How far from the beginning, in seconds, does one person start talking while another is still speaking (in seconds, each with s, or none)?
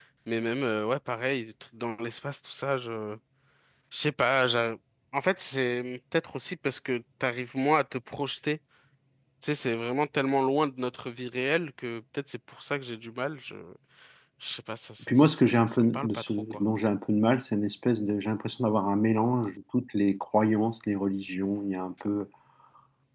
15.0 s